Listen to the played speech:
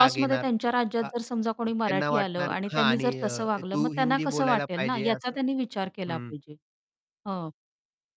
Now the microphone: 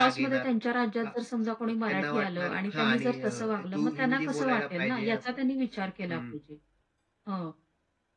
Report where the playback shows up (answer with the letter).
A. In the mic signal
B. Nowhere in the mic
A